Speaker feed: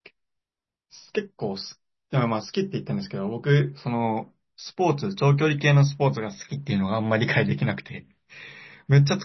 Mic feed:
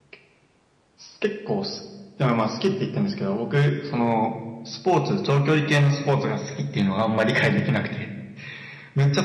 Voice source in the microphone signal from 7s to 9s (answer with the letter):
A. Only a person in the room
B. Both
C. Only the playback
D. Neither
C